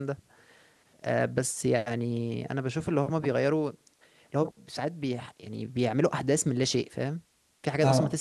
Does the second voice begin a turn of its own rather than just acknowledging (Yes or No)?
No